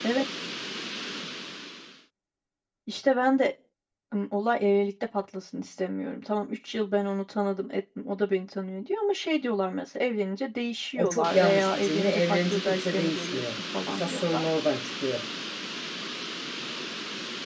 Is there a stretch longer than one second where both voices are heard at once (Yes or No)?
Yes